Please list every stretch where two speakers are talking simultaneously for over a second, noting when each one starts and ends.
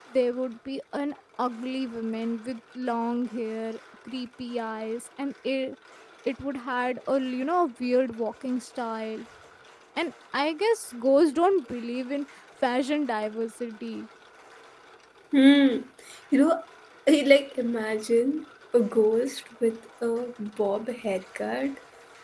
none

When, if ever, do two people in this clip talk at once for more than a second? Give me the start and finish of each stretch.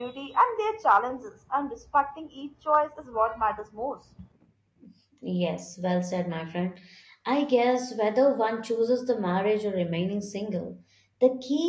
none

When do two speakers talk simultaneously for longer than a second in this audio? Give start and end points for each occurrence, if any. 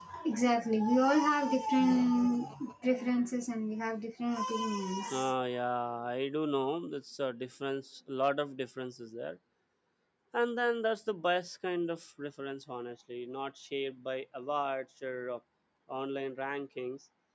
none

